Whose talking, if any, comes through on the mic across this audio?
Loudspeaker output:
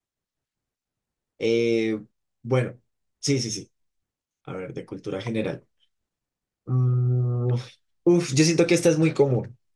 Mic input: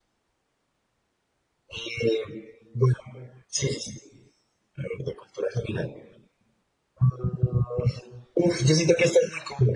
echo only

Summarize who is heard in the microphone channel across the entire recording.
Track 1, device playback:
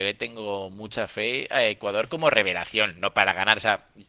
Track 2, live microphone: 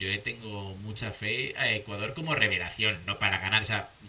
echo only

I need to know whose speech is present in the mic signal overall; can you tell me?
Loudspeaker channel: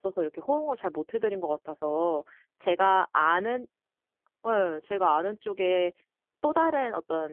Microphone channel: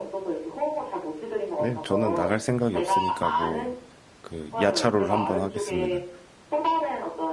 both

